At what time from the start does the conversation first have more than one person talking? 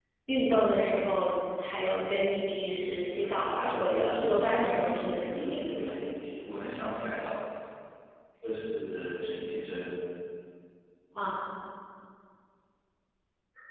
3 s

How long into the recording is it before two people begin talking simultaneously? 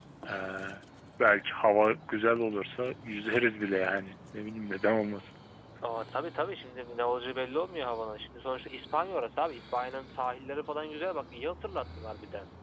none

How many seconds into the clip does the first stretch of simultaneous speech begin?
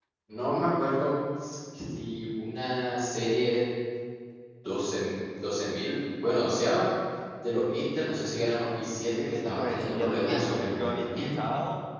10 s

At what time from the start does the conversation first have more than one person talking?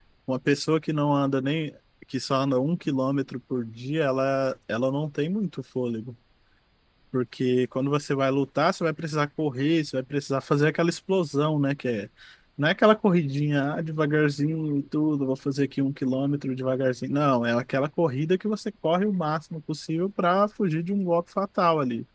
none

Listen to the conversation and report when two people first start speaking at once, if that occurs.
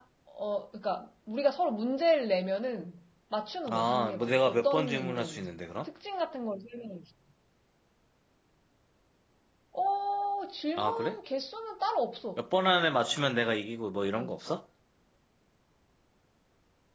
4 s

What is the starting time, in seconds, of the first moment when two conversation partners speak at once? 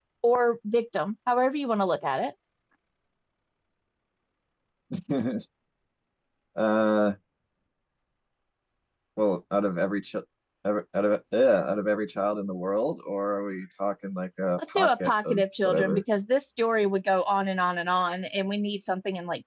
15 s

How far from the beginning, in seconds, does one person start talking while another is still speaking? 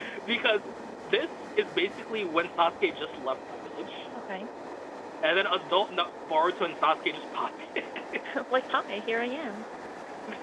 none

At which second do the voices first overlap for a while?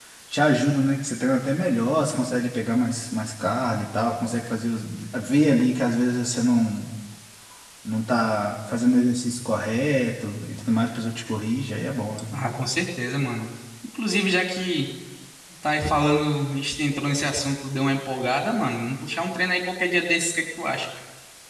none

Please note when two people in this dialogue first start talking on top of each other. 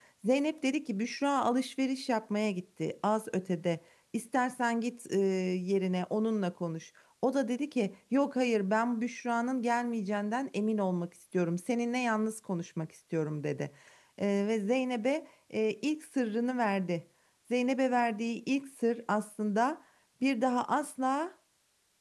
none

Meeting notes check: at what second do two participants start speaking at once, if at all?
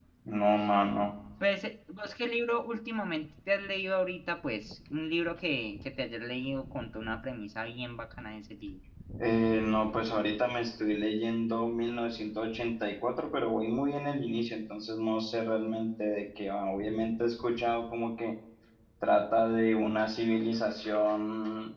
none

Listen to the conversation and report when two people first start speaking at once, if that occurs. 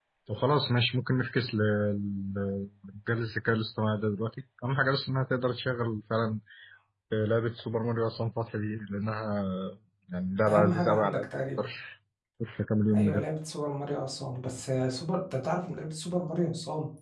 10 s

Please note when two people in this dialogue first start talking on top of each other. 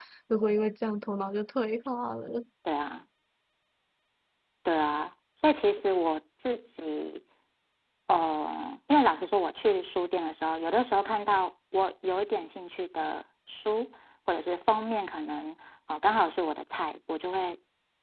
none

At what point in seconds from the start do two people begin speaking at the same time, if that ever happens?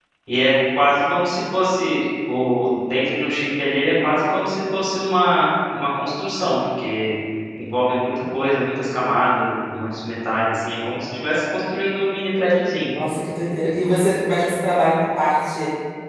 none

